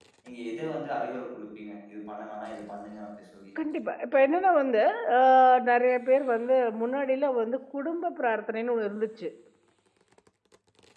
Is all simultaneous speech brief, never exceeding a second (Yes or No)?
Yes